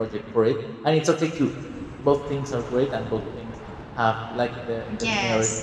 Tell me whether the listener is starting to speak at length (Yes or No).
Yes